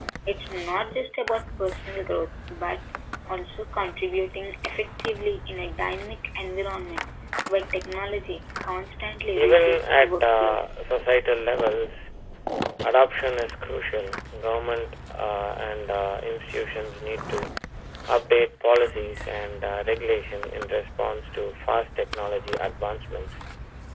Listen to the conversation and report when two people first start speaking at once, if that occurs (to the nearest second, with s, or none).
9 s